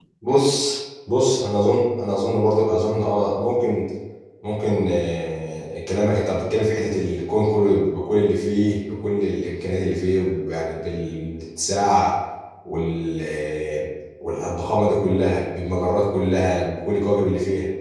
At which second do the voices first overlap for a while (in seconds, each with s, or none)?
none